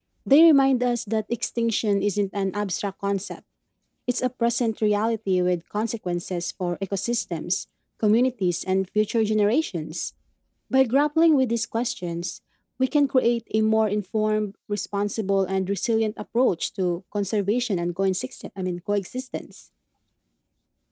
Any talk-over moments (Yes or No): No